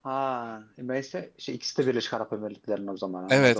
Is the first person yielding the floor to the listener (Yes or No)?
Yes